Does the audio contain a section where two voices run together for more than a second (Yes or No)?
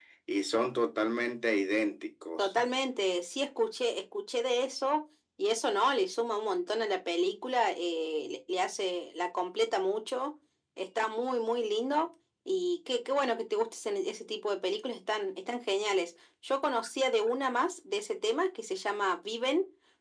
No